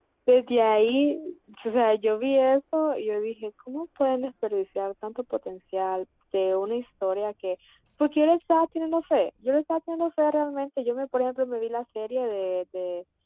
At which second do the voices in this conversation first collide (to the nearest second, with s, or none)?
none